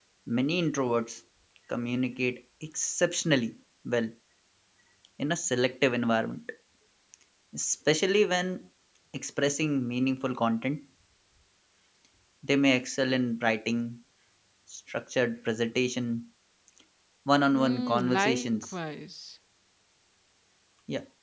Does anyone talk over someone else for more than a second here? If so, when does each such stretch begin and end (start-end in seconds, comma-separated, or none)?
17.5-18.7